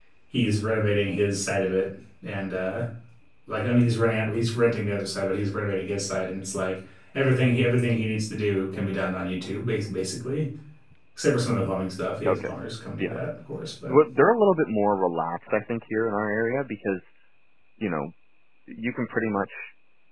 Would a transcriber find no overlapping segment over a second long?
Yes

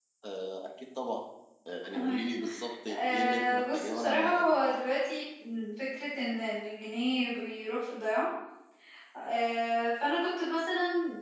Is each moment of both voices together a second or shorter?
No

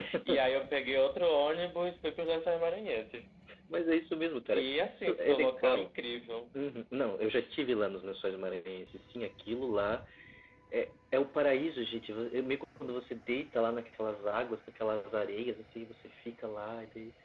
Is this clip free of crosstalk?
No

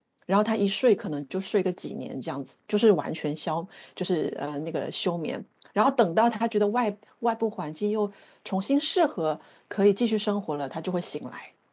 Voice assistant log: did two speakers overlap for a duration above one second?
No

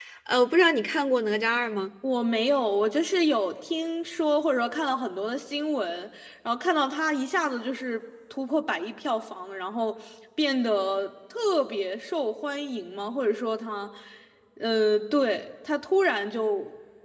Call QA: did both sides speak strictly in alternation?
Yes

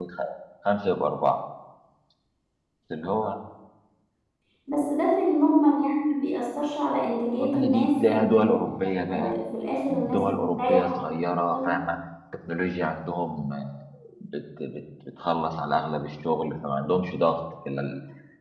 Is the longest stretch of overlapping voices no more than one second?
No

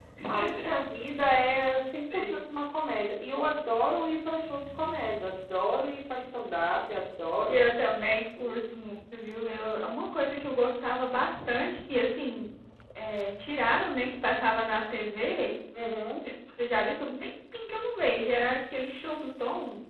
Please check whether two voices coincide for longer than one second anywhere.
No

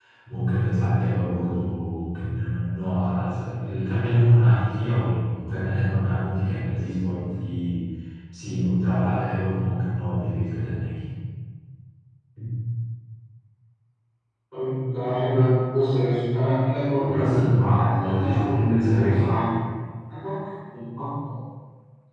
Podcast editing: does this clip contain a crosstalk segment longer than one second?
Yes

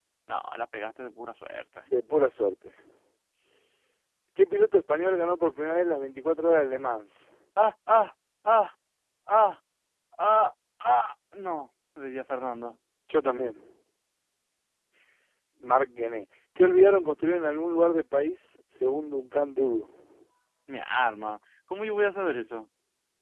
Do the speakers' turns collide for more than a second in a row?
No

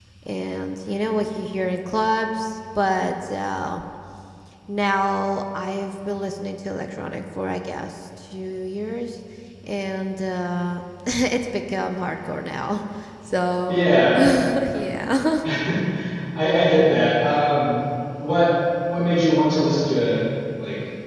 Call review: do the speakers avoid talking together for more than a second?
Yes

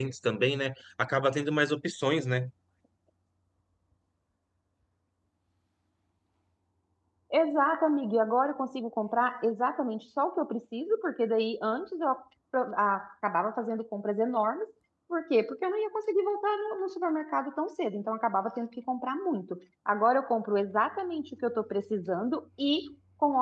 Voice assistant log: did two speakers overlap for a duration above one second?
No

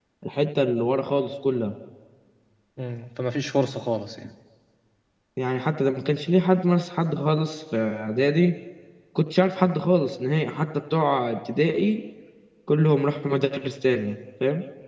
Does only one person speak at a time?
Yes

